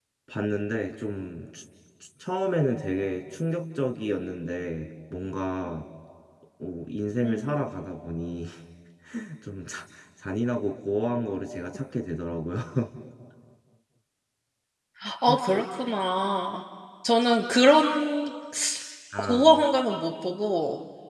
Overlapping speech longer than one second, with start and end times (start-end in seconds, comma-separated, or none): none